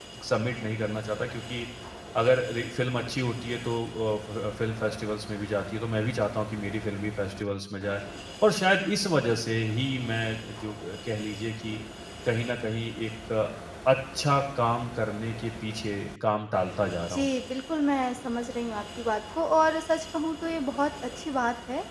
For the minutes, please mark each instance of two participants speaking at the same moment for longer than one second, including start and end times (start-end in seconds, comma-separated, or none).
none